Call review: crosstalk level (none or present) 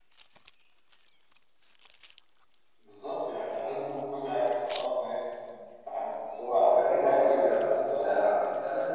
present